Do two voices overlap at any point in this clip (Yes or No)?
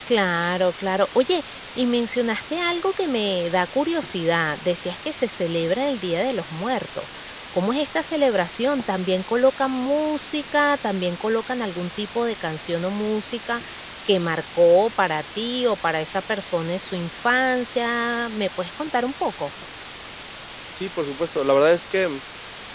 No